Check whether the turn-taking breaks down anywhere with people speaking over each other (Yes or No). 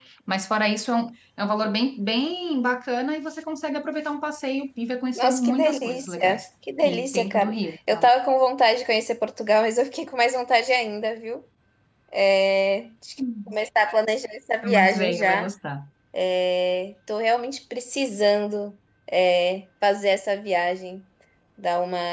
Yes